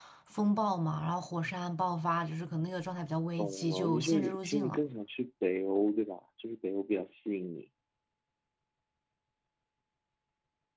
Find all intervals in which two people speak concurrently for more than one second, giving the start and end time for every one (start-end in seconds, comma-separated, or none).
3.4-4.8